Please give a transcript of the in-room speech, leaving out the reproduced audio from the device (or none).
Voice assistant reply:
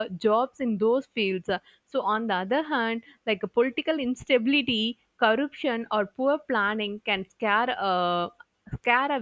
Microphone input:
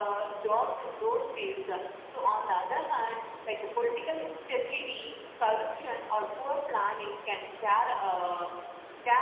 none